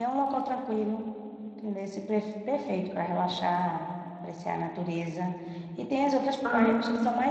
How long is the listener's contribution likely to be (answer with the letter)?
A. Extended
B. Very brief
B